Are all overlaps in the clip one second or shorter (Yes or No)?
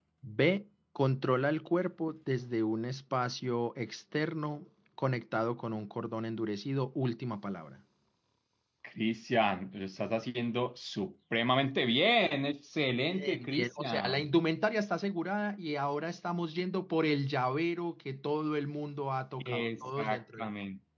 No